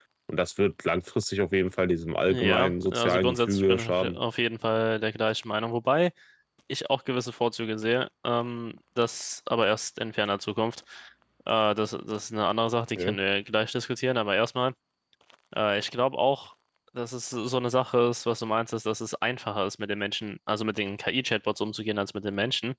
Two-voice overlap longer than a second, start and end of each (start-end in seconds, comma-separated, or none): 2.3-4.2